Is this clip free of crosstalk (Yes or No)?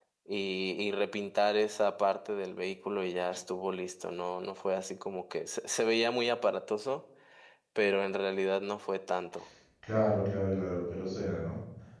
Yes